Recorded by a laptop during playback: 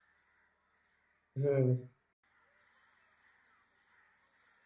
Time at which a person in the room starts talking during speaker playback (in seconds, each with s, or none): 1.4 s